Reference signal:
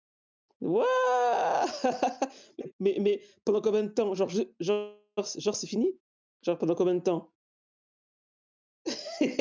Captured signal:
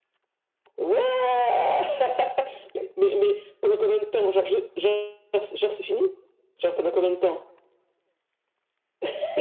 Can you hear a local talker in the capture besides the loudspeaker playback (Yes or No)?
No